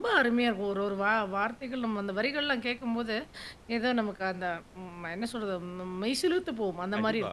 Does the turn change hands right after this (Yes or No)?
Yes